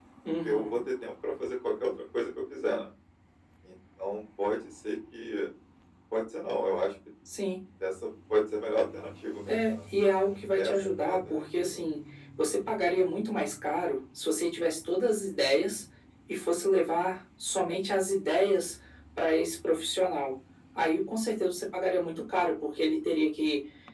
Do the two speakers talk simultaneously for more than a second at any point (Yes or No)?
Yes